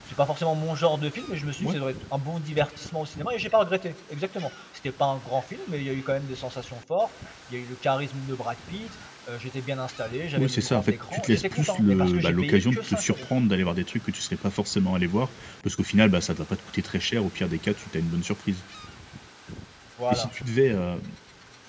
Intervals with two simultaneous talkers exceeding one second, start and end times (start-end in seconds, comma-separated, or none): 10.4-13.3